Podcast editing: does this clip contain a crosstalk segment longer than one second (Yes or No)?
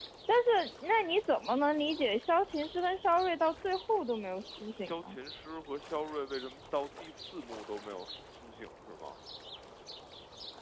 No